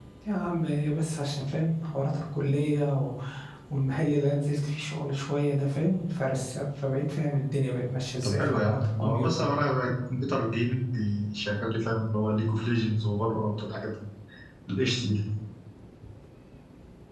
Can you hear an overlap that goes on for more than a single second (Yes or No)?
Yes